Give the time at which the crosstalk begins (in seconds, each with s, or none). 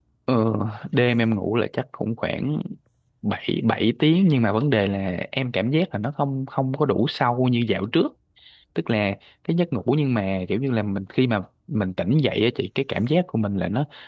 none